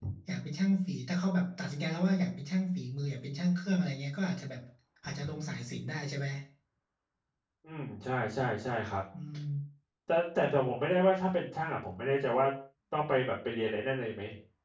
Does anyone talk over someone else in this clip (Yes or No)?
No